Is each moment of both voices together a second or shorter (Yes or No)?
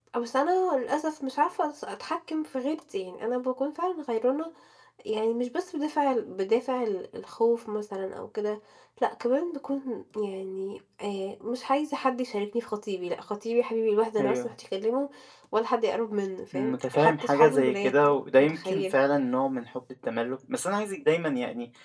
No